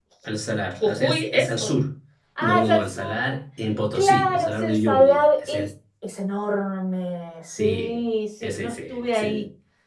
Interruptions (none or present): present